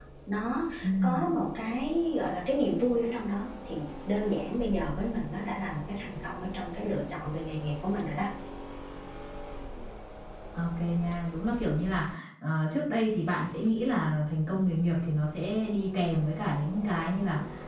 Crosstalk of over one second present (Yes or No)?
No